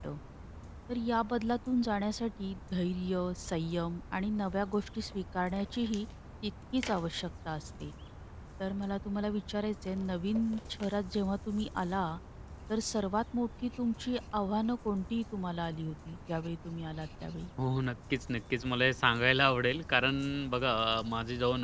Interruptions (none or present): none